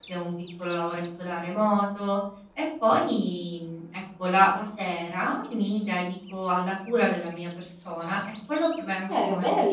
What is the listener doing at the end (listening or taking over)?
taking over